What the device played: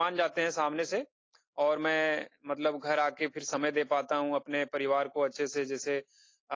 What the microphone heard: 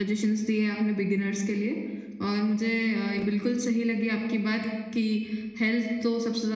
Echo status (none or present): none